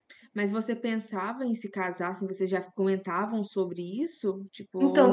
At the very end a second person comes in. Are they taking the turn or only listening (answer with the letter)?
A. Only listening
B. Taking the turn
B